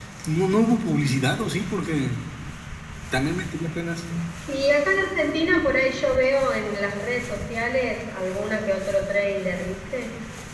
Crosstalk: none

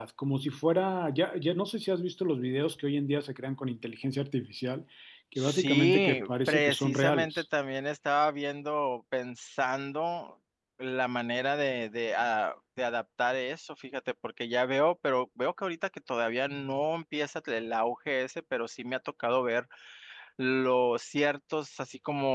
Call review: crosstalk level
present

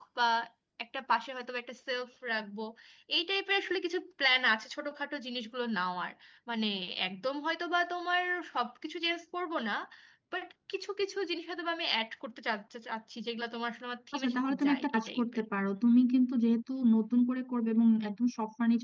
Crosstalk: present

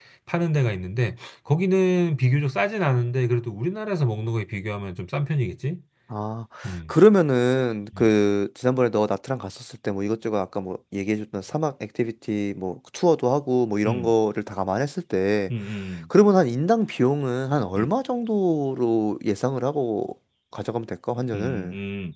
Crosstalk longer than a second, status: none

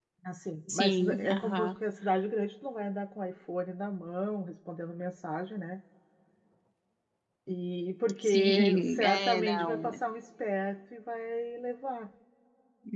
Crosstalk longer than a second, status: present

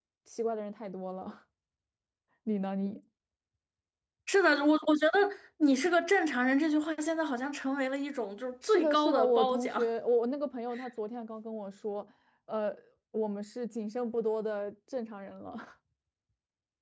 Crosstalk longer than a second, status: present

